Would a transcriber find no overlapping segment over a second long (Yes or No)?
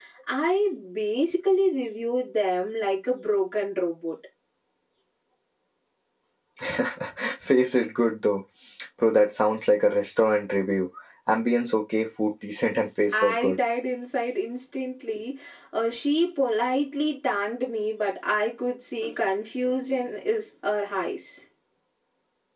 Yes